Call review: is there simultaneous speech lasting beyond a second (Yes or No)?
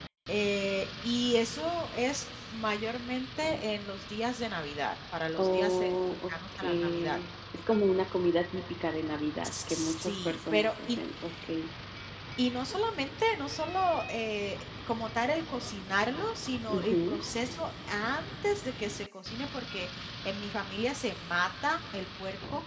Yes